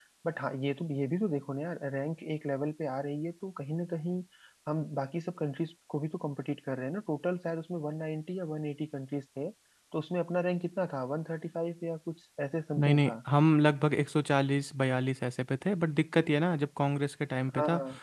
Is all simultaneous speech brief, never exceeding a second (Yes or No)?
Yes